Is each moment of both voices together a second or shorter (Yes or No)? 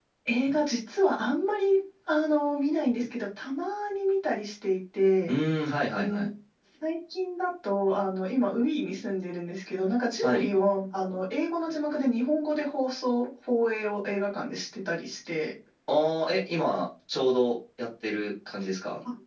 Yes